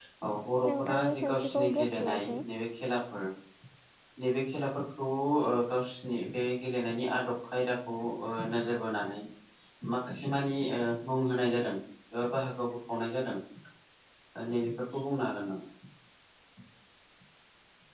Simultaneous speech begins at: 0.8 s

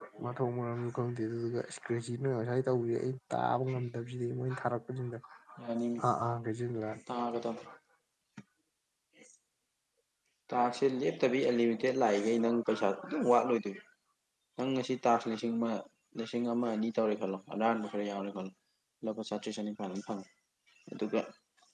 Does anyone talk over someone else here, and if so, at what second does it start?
none

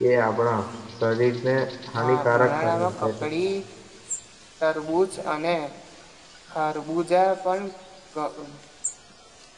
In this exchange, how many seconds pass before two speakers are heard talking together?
2.0 s

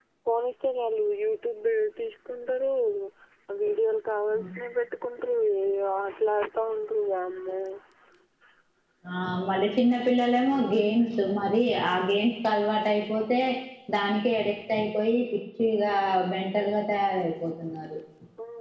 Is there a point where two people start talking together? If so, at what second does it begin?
none

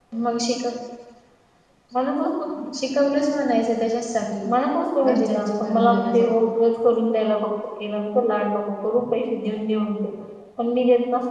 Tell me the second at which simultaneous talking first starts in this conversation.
5.0 s

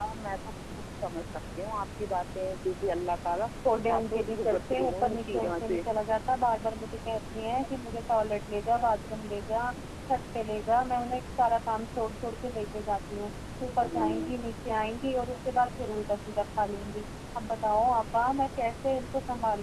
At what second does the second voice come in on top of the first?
3.9 s

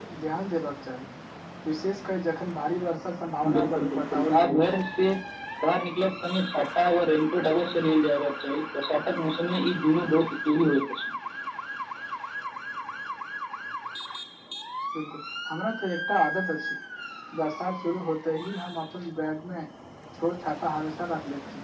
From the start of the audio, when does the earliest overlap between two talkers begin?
3.4 s

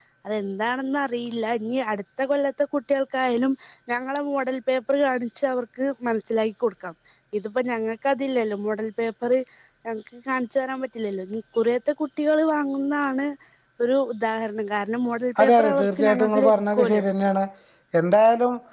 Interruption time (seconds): 15.4 s

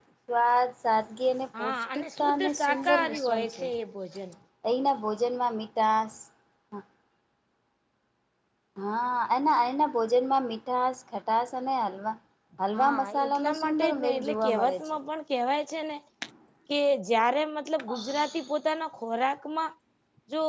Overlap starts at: 1.6 s

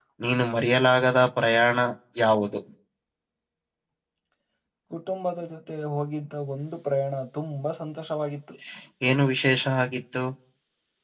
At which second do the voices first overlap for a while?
none

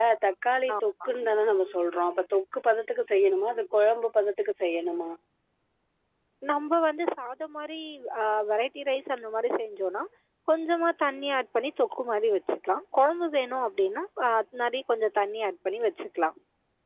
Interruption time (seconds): none

